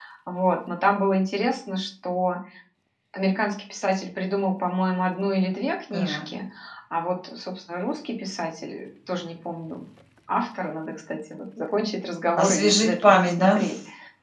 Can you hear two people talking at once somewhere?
Yes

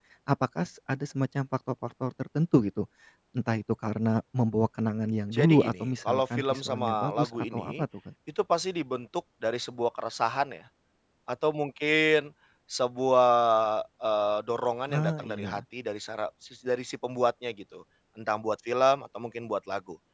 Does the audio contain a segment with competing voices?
Yes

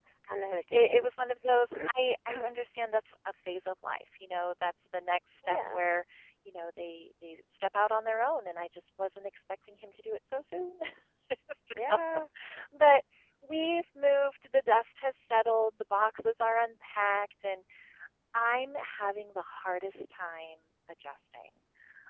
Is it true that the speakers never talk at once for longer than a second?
Yes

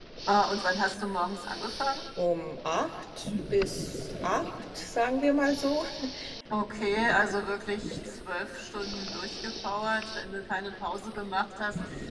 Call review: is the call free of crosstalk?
Yes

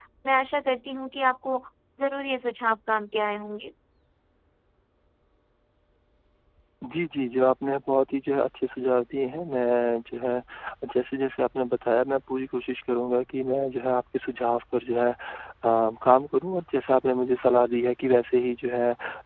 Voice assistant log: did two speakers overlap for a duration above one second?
No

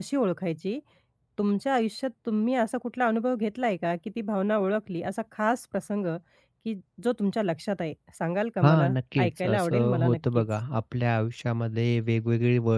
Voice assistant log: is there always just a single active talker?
No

